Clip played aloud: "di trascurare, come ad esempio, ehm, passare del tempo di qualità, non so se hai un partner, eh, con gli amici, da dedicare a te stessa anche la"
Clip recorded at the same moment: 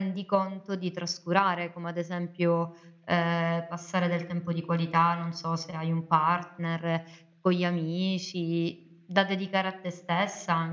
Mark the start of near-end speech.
none

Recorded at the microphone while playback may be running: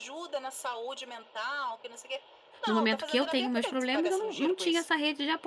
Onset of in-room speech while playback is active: 2.7 s

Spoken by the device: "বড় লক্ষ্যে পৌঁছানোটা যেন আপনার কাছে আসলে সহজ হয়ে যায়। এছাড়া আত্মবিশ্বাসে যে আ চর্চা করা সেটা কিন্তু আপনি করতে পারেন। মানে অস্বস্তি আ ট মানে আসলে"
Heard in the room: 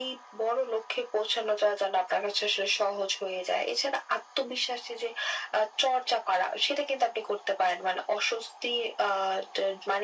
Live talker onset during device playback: none

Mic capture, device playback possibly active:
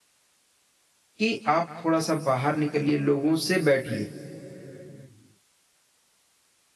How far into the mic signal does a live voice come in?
1.2 s

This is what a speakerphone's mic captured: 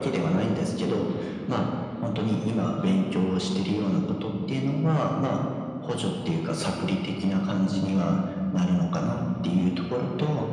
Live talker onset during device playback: none

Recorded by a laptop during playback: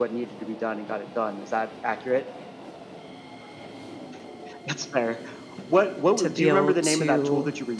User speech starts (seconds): 6.2 s

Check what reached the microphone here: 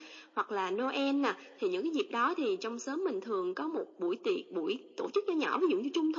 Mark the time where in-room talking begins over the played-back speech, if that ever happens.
none

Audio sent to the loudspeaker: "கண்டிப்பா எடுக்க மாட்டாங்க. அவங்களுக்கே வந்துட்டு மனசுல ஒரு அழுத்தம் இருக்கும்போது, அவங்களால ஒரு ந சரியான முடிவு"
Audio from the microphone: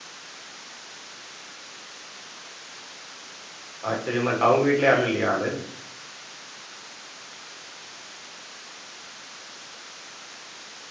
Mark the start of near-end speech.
3.9 s

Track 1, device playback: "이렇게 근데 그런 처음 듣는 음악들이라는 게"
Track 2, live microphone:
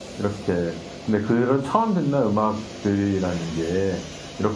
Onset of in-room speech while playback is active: none

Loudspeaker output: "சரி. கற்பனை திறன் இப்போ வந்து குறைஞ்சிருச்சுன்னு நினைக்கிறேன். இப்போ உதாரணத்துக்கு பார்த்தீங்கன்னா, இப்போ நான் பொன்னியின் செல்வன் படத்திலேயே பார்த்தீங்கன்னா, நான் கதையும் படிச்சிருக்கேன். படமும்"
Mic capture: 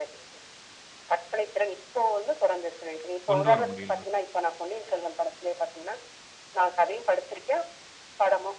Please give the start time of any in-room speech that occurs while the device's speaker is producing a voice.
3.3 s

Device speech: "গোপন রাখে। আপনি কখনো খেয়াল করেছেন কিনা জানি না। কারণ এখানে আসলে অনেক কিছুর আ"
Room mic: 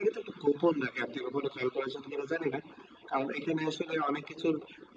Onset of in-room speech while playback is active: none

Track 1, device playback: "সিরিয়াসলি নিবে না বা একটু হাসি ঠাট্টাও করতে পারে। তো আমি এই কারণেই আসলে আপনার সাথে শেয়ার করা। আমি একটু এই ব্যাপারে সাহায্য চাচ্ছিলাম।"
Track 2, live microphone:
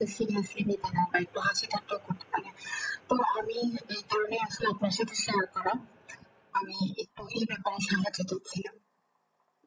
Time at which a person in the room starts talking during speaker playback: none

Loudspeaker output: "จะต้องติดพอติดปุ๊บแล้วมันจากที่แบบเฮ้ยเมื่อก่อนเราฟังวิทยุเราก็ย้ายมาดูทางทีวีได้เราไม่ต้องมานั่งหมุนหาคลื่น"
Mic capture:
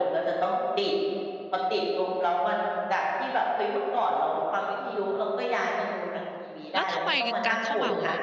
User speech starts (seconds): 6.7 s

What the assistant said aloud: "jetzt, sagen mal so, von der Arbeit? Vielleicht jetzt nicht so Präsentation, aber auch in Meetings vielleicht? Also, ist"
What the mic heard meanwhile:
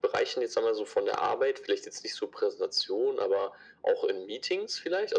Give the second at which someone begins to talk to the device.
none

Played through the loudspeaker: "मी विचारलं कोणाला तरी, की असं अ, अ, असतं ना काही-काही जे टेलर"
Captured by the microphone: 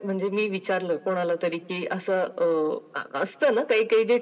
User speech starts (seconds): none

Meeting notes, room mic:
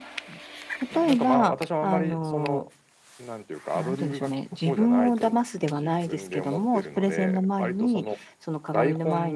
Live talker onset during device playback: none

